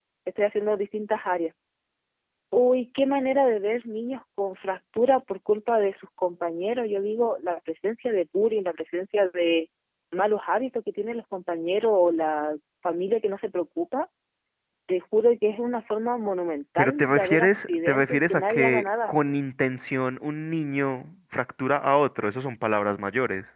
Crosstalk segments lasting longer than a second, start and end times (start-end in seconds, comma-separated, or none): 16.8-19.1